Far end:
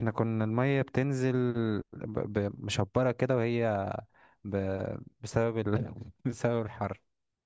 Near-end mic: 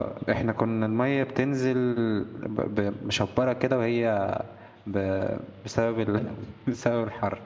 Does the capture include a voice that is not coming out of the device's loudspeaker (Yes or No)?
No